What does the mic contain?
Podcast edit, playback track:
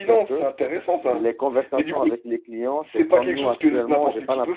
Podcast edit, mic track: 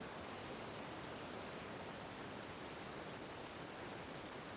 neither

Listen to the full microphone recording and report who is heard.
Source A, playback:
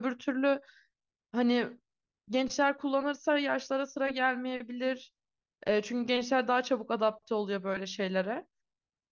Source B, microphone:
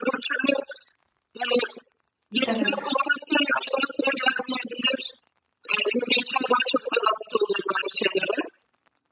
both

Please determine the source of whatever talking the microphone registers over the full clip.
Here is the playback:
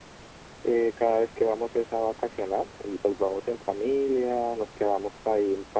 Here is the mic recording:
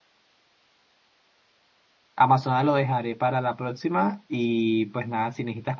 user only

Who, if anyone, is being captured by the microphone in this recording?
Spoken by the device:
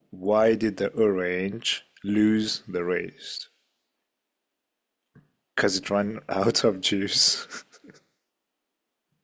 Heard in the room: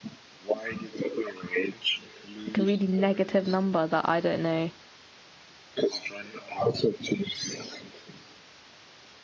both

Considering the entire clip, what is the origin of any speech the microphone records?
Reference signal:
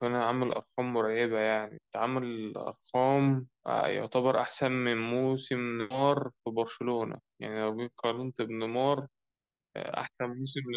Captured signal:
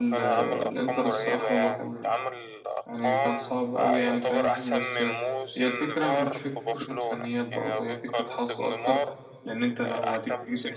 both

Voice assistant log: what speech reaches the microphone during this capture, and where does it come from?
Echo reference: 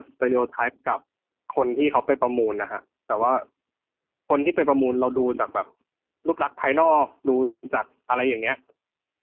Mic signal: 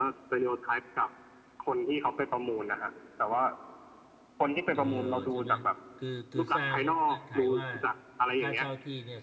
both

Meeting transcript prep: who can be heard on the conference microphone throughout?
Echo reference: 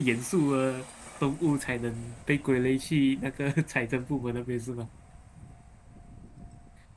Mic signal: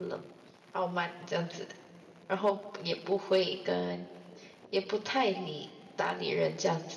user only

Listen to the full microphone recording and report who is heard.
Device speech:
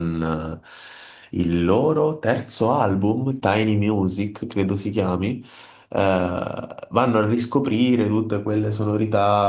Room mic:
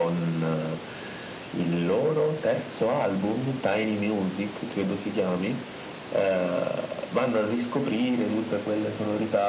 echo only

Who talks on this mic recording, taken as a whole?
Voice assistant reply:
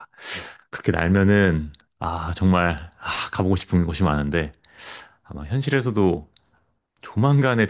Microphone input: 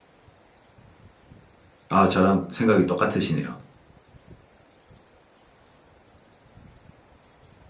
user only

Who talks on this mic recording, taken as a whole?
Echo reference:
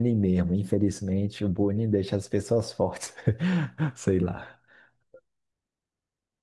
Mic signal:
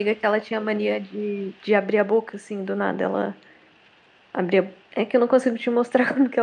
user only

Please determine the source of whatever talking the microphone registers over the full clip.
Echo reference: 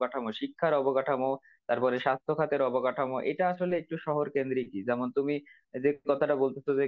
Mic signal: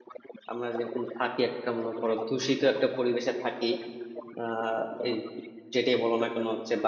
both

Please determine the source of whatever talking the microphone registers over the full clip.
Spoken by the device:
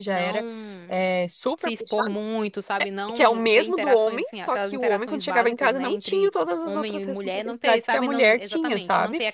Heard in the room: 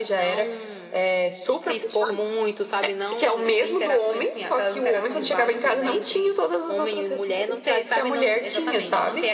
echo only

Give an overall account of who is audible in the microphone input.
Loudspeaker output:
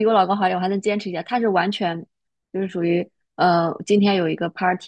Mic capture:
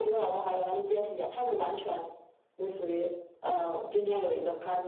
echo only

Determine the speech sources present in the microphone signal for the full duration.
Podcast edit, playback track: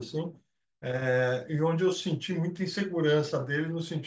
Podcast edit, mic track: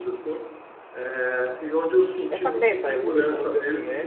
both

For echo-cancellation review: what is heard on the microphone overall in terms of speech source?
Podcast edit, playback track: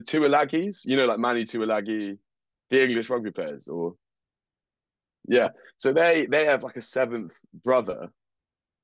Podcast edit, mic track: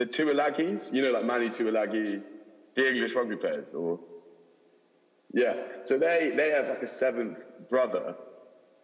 echo only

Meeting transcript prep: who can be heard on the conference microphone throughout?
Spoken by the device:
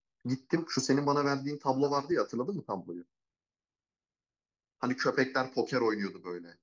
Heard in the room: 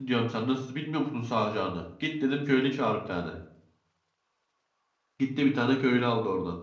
user only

